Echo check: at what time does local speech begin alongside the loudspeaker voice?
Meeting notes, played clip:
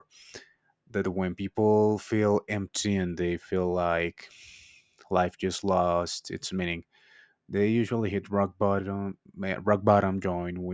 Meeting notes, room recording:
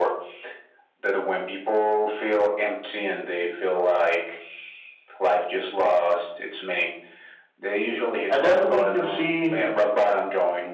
8 s

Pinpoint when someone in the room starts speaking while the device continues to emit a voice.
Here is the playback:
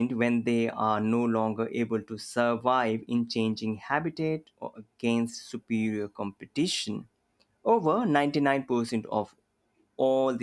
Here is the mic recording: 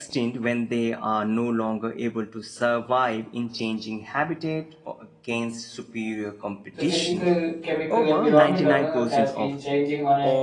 7 s

